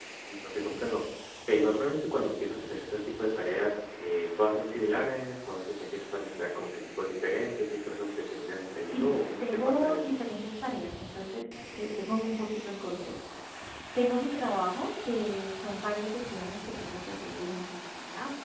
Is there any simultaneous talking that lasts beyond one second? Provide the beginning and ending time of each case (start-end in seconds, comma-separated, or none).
8.9-10.2